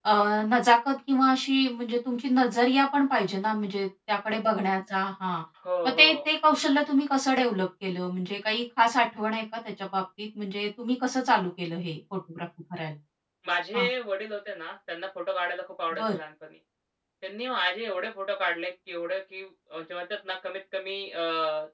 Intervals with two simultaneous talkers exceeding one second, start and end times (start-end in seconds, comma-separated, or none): none